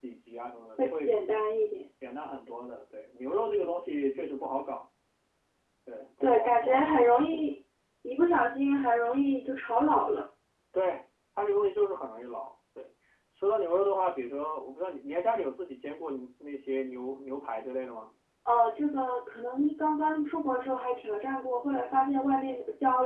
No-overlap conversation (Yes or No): No